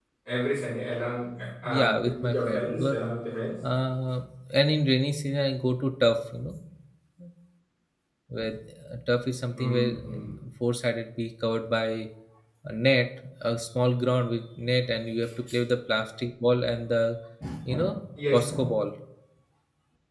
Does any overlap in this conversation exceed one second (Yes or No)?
Yes